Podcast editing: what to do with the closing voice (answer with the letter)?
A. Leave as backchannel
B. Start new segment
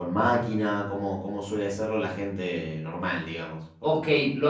B